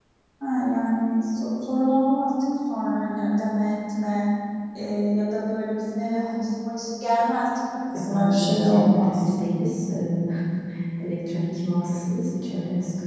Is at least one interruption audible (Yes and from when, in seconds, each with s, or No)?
Yes, from 8.1 s